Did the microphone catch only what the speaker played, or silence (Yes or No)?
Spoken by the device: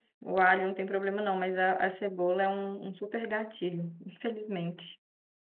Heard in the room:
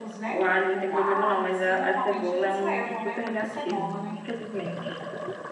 No